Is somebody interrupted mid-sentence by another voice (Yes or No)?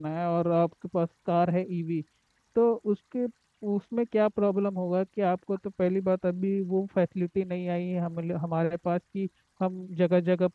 No